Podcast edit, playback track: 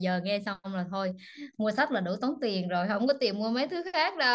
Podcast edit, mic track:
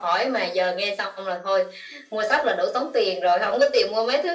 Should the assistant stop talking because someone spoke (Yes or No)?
No